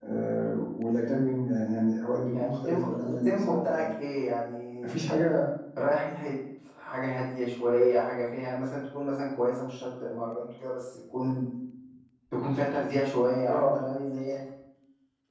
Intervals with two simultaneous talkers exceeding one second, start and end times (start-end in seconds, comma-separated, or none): 2.3-3.8